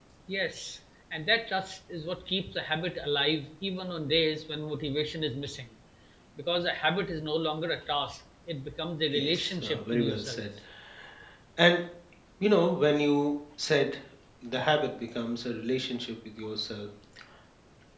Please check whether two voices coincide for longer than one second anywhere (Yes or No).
Yes